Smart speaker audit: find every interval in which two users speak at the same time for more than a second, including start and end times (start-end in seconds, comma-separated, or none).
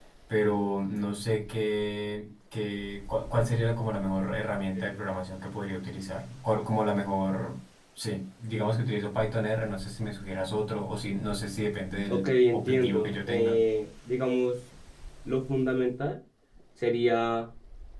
12.1-13.6